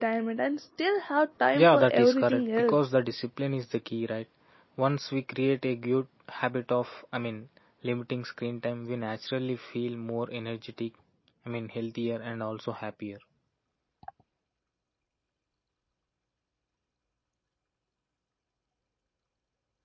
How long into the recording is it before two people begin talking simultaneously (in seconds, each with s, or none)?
1.5 s